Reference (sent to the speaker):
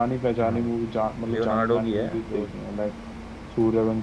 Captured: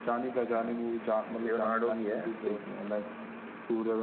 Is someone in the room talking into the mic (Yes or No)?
No